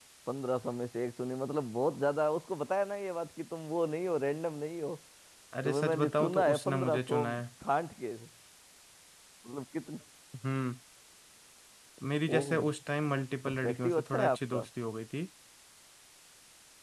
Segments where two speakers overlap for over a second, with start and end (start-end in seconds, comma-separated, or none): 5.7-7.2, 13.4-14.7